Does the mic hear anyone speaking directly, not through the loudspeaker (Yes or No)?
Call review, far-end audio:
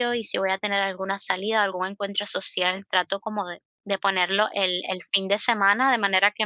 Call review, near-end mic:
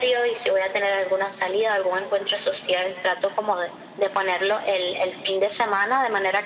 No